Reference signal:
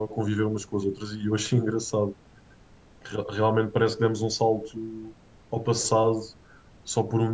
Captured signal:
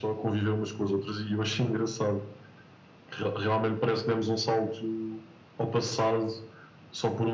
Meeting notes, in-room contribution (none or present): none